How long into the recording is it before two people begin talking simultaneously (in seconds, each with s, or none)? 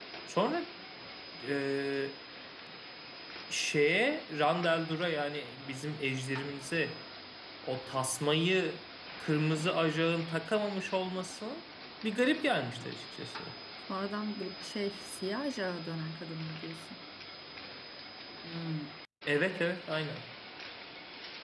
none